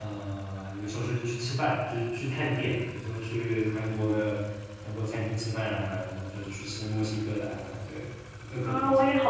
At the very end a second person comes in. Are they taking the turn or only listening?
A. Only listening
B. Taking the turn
B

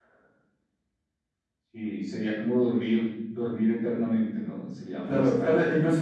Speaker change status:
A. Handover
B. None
A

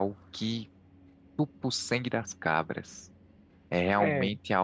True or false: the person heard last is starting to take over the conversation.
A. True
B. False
B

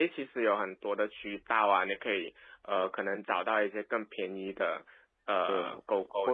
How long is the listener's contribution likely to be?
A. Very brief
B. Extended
B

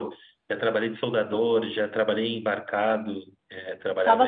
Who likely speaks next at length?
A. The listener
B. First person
A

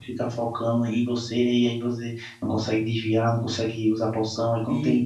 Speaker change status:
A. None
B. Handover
A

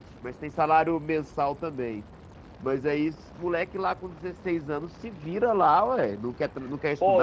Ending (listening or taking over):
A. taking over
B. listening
A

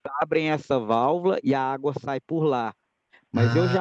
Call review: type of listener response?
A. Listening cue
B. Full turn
A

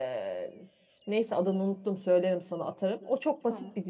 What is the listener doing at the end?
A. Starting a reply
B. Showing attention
B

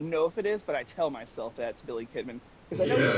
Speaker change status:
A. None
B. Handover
B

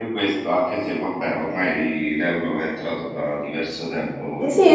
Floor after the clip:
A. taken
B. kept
A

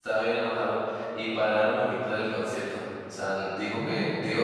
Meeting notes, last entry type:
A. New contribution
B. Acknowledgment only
B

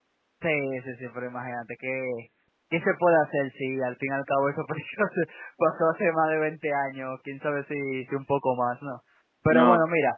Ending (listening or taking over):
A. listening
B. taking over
A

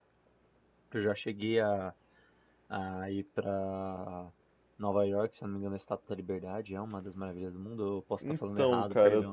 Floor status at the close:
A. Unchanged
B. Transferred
B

